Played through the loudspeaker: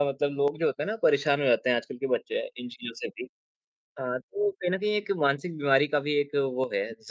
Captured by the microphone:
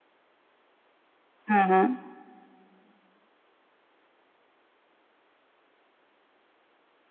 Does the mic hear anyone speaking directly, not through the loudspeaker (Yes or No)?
Yes